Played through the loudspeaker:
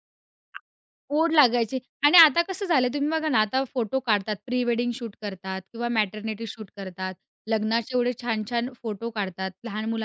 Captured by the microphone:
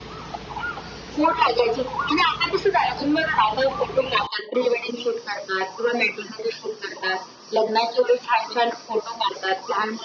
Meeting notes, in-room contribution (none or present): none